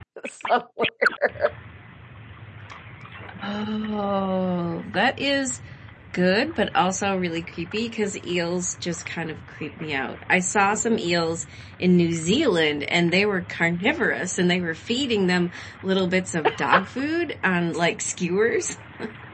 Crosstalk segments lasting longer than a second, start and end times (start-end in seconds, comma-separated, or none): none